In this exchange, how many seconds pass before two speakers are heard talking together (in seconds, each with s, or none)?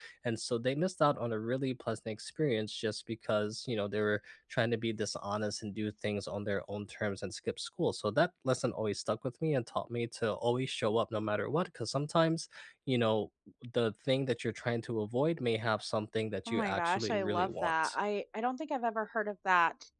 16.5 s